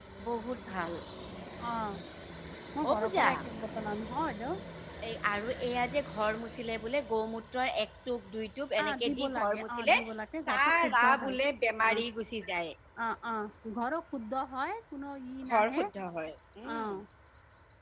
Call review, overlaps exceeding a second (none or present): present